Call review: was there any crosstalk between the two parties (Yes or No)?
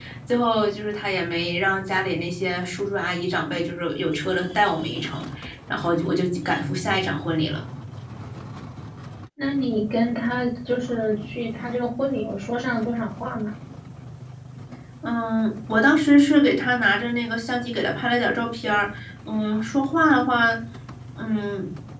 No